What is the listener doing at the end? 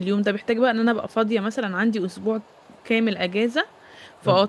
taking over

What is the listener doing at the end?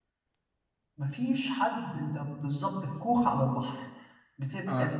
listening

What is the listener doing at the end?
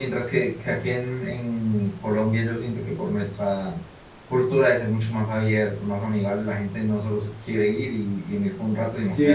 taking over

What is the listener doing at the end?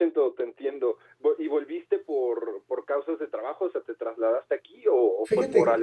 taking over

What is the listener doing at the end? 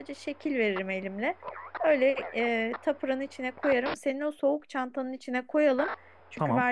listening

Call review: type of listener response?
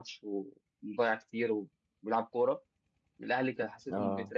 listening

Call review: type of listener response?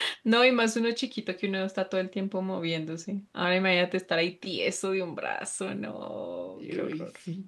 taking over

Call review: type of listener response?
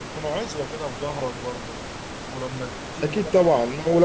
taking over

